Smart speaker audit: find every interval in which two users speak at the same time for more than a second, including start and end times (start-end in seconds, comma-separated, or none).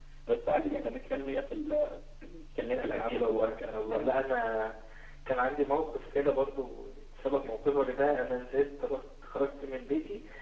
2.7-4.1